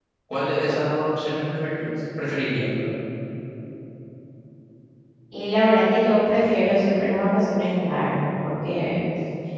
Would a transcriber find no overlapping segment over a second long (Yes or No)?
Yes